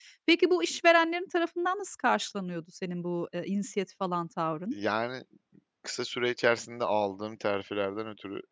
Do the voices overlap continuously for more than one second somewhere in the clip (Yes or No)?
No